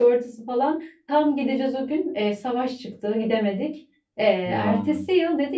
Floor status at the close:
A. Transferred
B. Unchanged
B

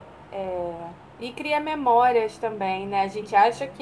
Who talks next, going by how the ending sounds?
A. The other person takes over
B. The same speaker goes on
B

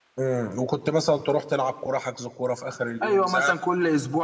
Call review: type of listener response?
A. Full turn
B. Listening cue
A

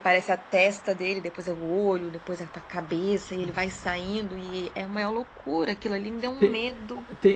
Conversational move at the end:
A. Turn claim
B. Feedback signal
A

